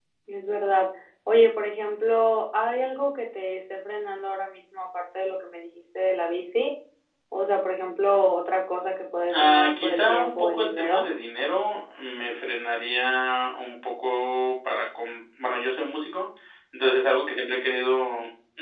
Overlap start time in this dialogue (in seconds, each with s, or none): 9.3 s